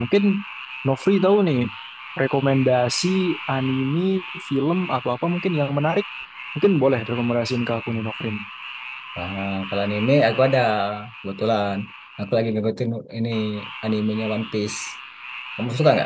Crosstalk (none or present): none